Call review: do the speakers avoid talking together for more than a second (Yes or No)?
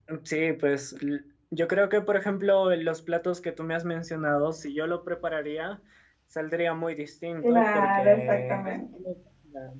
No